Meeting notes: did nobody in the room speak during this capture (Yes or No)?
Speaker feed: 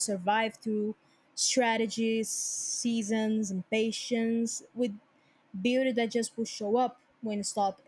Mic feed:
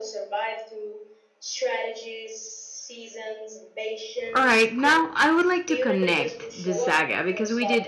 No